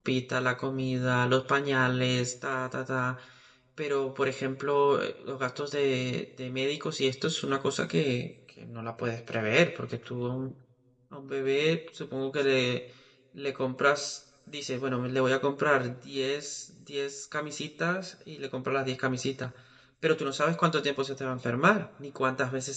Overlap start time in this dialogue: none

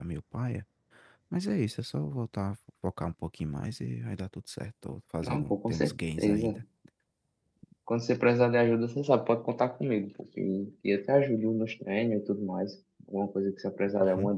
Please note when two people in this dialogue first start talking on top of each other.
5.2 s

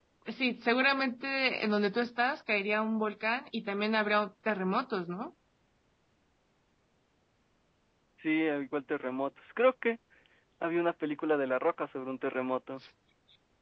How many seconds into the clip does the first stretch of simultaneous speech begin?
none

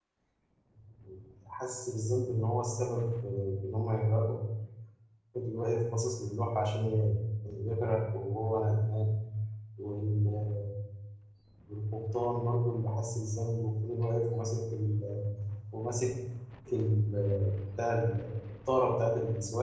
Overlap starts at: none

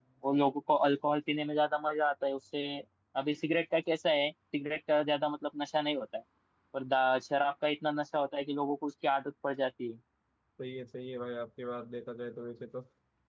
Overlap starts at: none

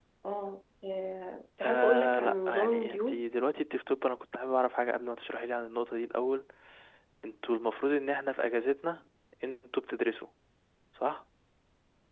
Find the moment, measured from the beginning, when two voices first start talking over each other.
1.6 s

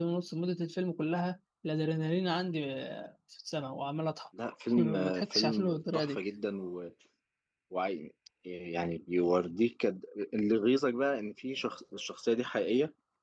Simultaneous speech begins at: 4.8 s

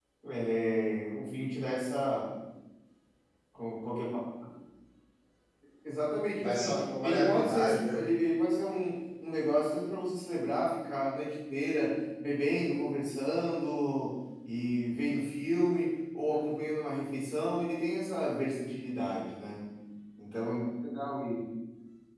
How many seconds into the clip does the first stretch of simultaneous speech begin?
6.3 s

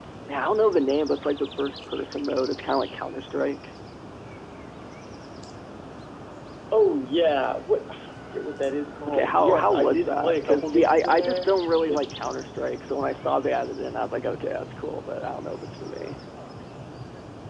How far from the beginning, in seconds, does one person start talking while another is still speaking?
9.1 s

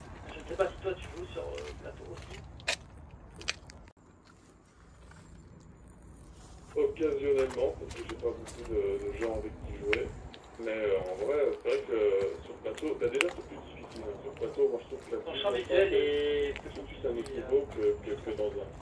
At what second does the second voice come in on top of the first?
15.2 s

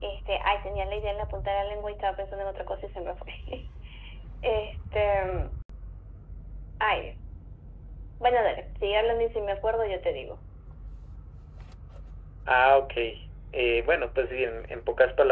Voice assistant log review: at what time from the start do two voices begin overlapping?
none

